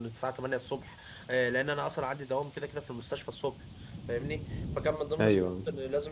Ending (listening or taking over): listening